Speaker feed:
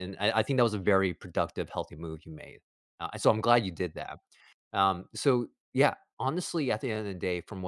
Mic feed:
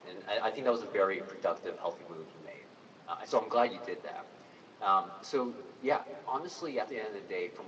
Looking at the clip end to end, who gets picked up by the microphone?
echo only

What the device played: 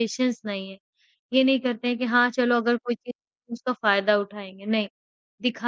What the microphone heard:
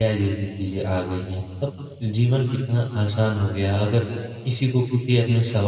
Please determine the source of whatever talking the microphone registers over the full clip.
user only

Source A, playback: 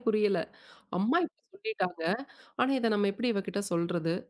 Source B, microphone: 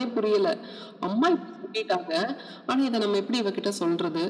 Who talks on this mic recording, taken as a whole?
echo only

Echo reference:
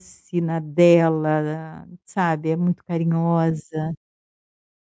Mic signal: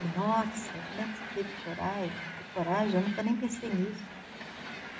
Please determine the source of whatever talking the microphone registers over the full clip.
user only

